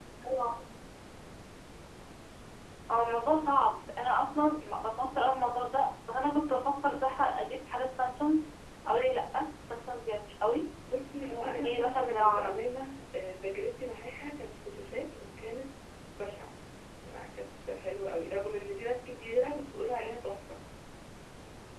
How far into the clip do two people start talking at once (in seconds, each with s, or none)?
11.3 s